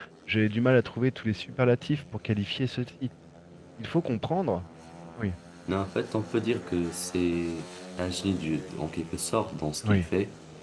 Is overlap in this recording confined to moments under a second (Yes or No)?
Yes